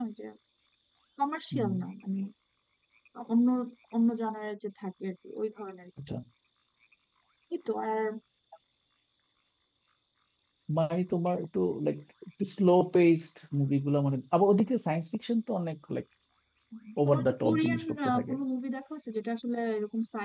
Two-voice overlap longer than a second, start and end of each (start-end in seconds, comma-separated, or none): 17.1-18.3